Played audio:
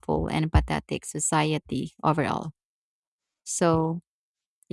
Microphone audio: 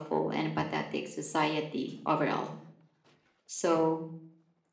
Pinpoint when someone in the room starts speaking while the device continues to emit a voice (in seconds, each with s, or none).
none